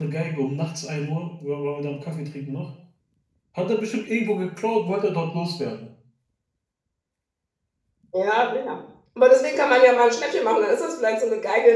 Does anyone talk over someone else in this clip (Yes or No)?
No